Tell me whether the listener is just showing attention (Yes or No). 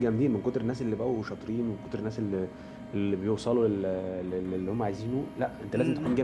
No